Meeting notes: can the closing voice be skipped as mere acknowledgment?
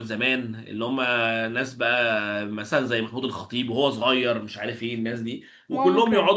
Yes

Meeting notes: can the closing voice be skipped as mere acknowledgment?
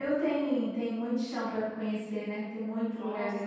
No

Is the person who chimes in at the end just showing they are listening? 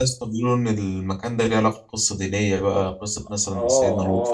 No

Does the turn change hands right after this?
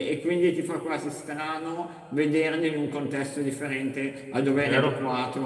No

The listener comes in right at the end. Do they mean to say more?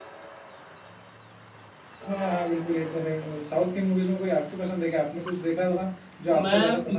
Yes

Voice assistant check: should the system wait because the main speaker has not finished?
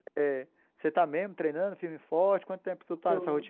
No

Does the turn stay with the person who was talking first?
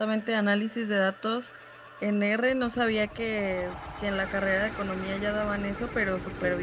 Yes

